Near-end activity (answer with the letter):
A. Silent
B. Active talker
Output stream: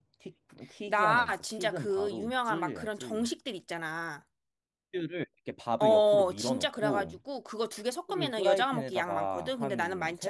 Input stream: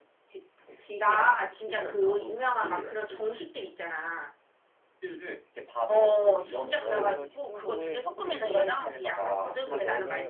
B